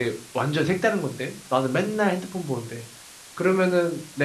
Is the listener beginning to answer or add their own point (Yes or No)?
No